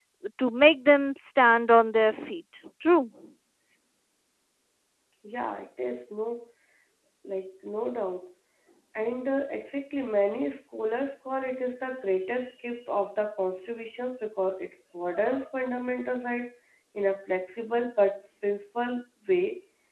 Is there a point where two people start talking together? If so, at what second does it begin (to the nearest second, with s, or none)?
none